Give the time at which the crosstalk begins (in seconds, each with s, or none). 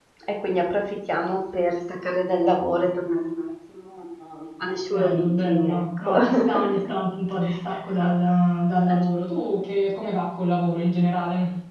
4.9 s